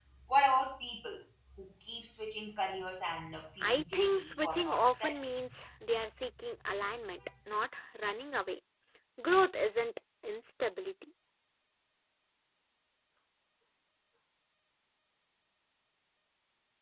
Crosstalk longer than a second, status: present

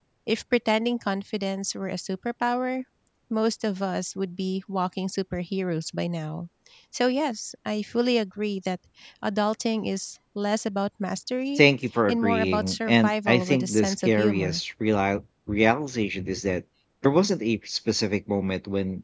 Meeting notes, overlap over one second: present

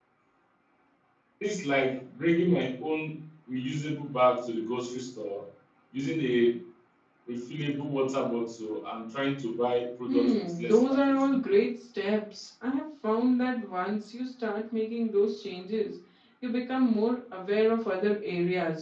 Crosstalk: present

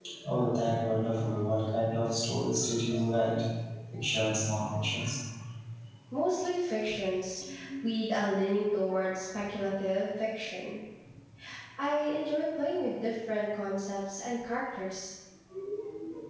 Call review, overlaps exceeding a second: none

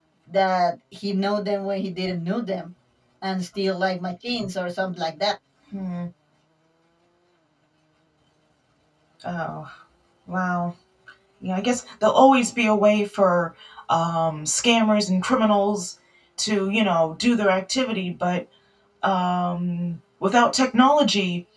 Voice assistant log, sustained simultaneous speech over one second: none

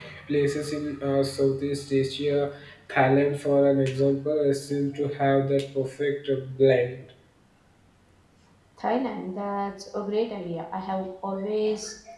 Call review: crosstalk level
none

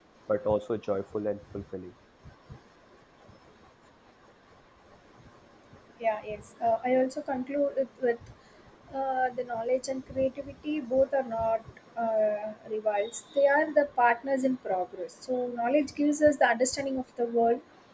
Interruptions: none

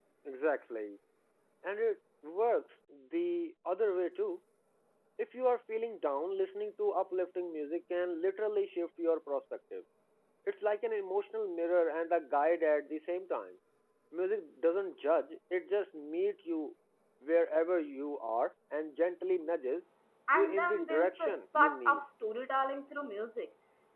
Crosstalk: present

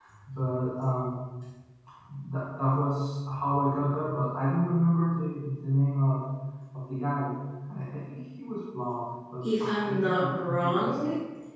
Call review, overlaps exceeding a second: present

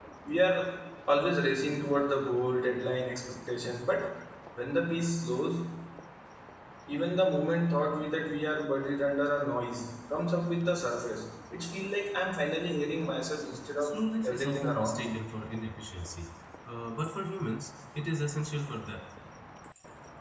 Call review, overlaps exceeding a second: present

